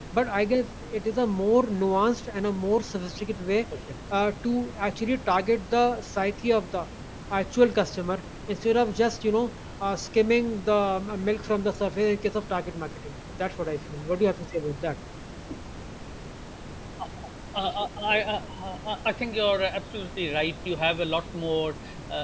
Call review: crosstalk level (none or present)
none